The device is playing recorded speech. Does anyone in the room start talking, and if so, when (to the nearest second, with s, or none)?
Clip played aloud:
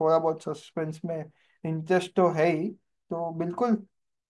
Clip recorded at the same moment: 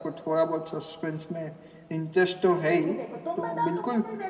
3 s